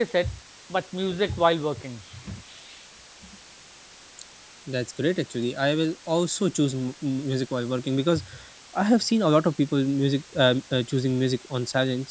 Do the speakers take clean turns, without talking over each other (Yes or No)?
Yes